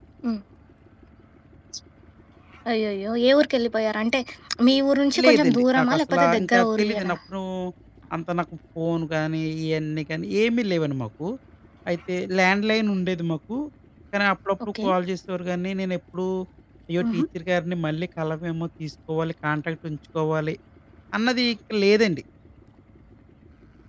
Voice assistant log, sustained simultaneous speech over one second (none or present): present